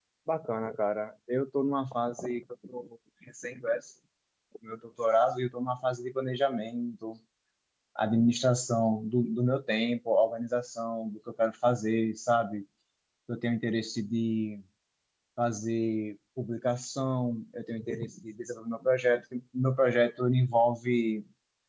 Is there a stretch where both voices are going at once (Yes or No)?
No